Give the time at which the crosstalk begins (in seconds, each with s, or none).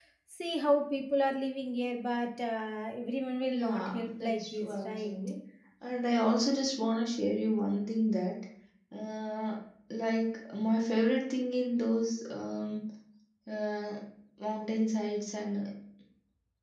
3.5 s